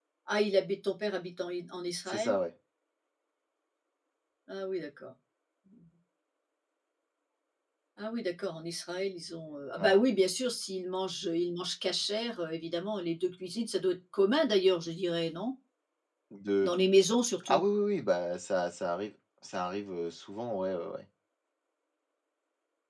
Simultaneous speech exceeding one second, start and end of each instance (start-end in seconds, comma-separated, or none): none